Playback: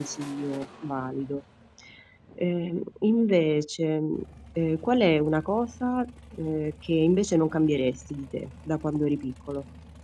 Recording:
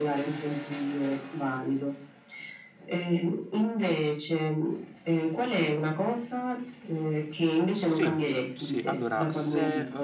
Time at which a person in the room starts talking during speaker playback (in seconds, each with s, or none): 7.8 s